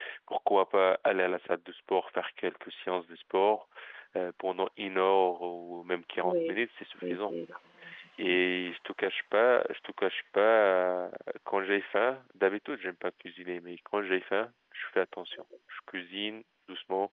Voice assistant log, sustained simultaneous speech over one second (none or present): none